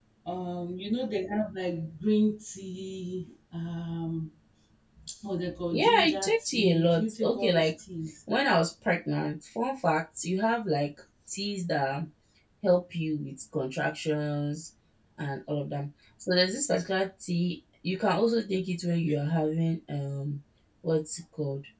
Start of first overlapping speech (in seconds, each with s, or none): 5.7 s